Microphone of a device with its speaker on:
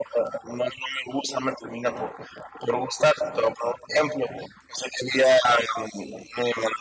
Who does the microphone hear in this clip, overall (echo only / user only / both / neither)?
echo only